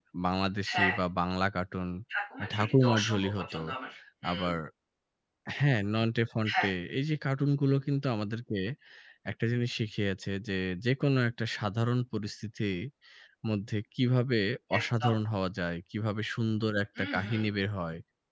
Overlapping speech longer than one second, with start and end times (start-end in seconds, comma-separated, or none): 2.4-3.6